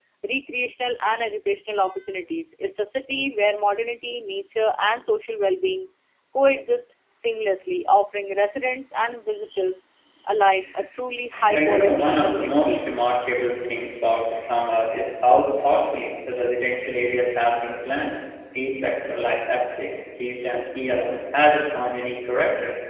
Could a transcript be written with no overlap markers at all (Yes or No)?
No